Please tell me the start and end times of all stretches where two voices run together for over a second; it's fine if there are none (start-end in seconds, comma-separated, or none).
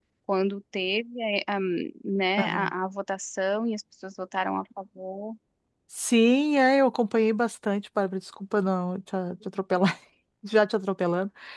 none